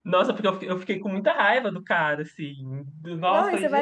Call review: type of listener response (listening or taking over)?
taking over